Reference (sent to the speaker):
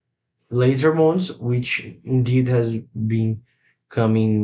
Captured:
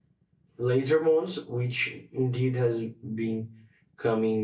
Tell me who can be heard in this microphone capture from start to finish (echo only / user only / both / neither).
echo only